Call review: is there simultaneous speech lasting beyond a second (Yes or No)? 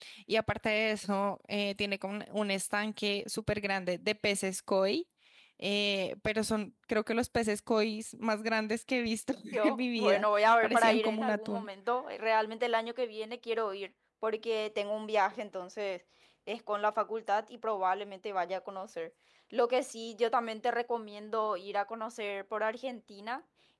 Yes